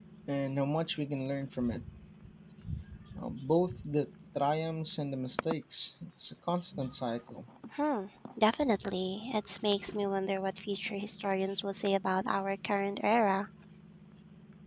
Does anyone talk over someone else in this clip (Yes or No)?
No